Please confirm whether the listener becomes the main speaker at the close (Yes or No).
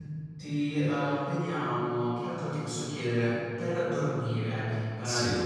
No